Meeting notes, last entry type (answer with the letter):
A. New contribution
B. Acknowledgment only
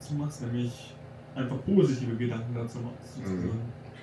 A